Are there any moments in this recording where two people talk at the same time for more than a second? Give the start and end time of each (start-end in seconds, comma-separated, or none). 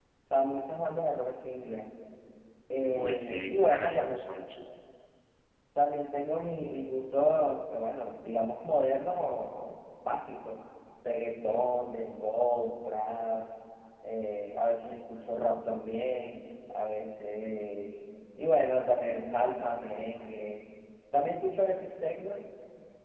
2.8-4.2